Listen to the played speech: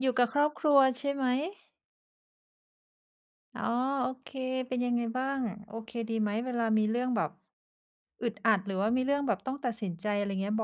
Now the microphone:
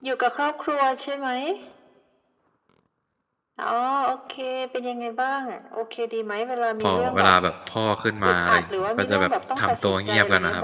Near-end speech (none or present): present